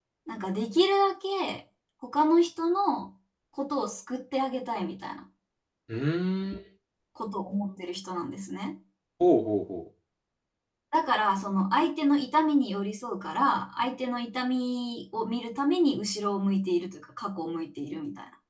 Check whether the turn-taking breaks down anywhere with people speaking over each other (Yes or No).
No